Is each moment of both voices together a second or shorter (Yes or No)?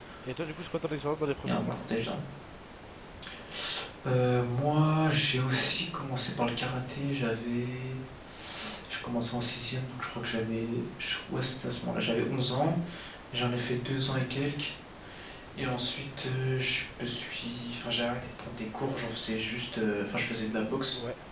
Yes